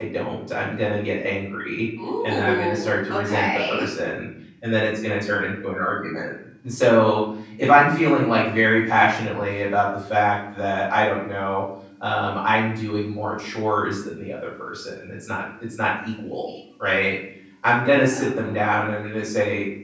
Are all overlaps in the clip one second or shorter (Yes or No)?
No